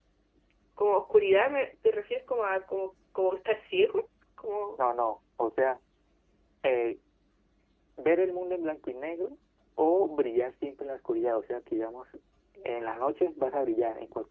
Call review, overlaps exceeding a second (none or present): none